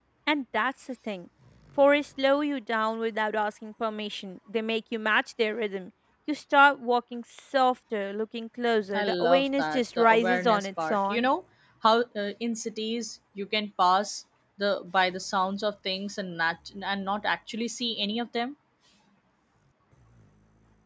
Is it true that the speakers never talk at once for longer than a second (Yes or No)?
No